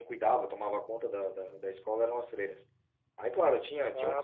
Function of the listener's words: listening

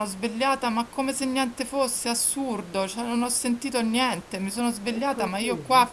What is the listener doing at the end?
listening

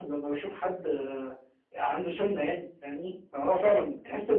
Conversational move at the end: listening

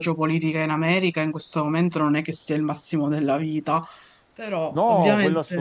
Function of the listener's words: taking over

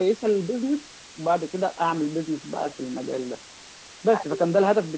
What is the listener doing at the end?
listening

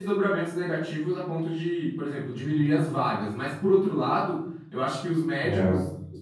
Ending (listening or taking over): listening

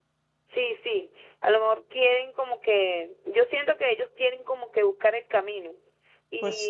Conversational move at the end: listening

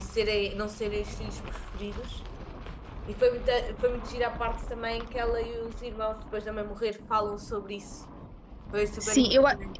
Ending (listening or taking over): taking over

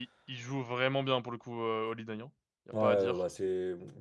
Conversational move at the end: taking over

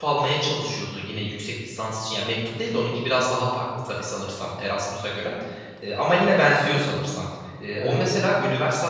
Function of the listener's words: listening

